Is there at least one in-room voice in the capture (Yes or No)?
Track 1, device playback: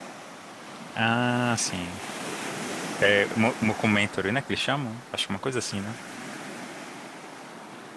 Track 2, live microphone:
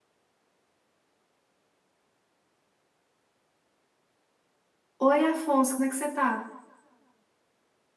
Yes